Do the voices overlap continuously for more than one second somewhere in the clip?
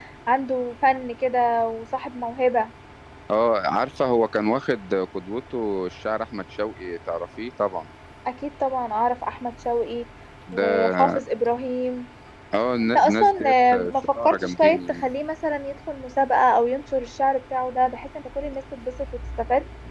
Yes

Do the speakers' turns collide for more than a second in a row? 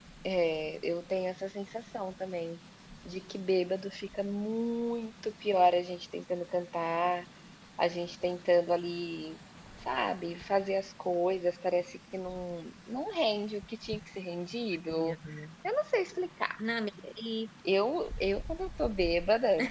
No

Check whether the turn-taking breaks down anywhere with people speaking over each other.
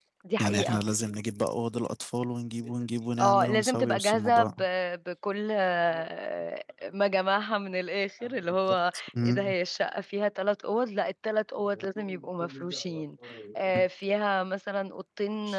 Yes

